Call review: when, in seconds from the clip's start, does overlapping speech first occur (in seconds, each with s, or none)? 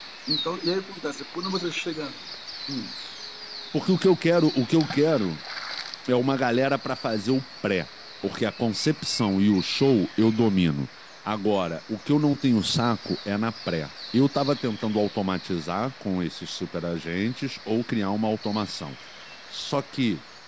none